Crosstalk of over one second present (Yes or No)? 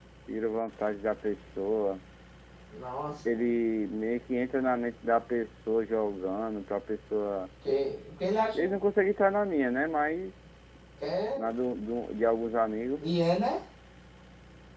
No